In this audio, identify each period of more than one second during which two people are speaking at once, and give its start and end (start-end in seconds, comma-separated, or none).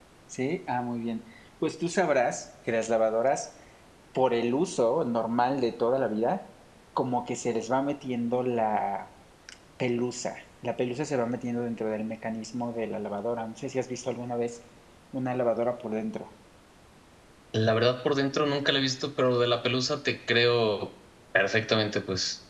none